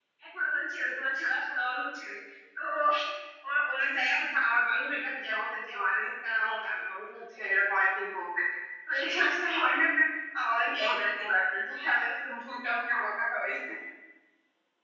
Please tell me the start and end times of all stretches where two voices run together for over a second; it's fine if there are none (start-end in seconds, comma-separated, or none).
none